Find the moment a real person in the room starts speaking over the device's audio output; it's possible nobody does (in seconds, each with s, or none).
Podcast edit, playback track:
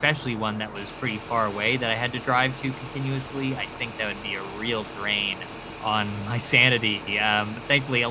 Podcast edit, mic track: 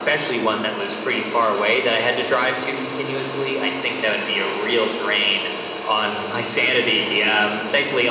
none